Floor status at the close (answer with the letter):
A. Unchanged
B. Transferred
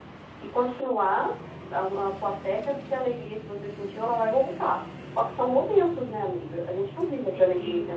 B